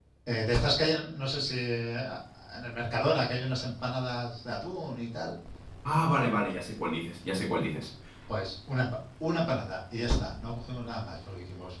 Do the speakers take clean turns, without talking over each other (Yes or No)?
Yes